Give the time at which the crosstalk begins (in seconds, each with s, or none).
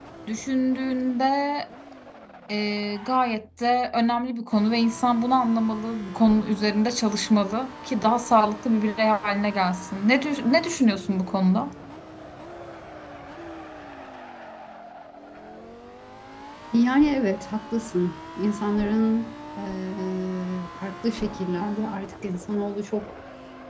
none